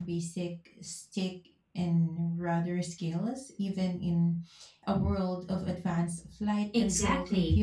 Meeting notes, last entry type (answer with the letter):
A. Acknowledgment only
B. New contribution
B